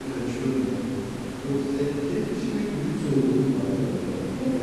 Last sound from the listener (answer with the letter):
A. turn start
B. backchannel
A